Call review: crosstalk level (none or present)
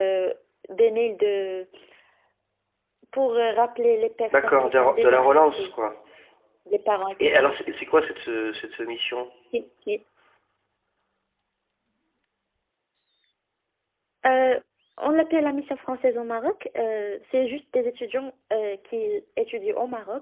present